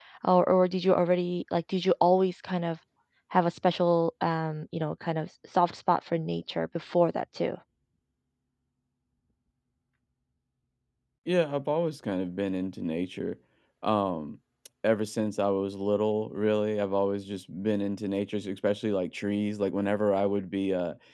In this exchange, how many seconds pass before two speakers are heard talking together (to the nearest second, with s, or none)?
none